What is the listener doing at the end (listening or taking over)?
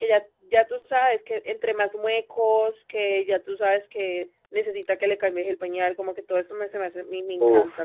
taking over